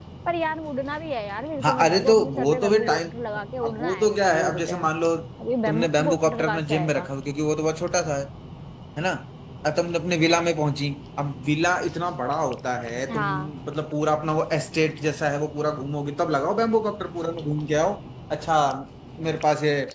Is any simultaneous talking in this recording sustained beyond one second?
Yes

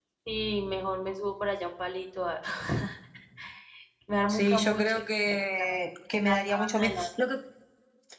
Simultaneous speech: Yes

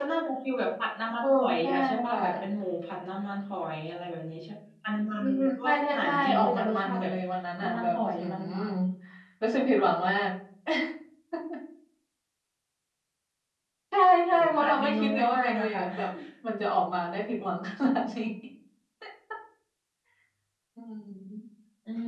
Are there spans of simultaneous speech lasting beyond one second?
Yes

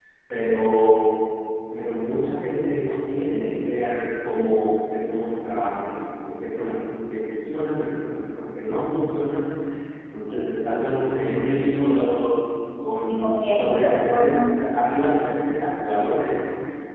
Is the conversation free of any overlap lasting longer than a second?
No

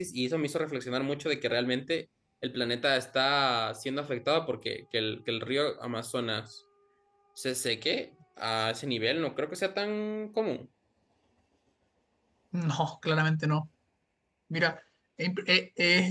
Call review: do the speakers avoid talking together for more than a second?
Yes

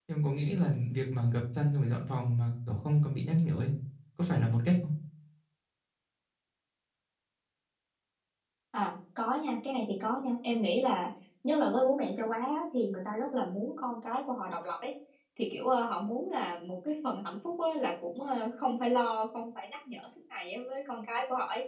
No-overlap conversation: Yes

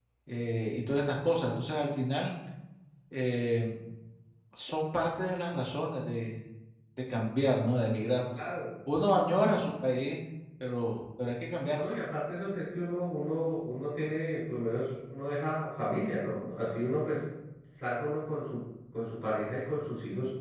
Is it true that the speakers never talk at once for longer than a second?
Yes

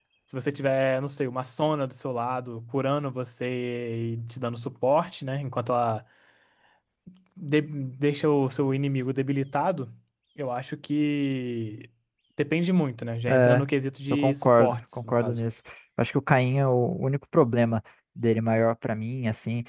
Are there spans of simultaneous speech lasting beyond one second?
Yes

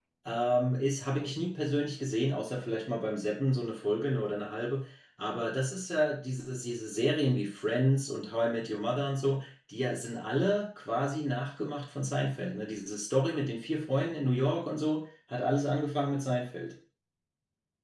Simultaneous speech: No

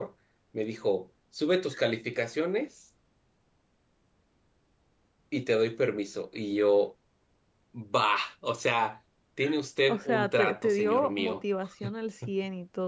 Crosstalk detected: Yes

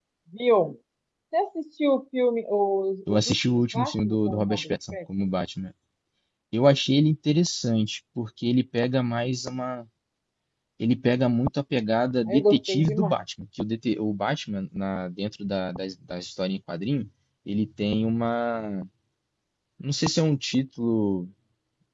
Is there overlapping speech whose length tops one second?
Yes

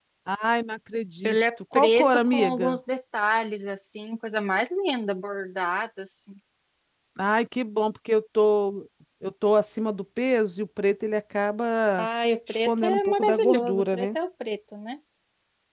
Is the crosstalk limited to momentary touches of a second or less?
No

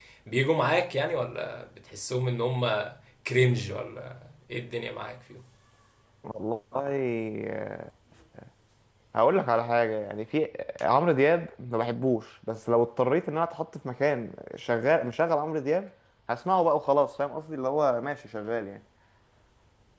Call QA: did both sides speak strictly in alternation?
Yes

